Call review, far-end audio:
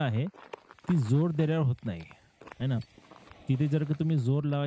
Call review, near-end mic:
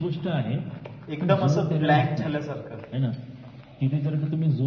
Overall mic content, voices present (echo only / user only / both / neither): both